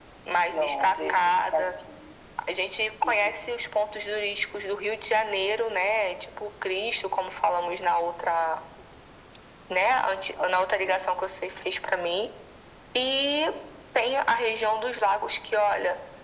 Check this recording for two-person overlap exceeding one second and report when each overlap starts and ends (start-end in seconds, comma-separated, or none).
0.5-1.8